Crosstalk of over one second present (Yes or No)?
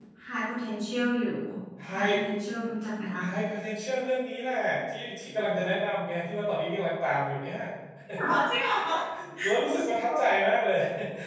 No